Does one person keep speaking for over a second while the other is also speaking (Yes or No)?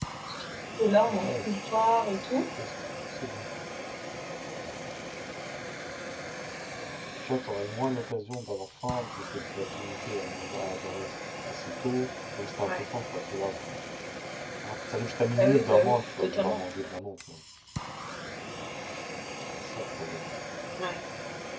Yes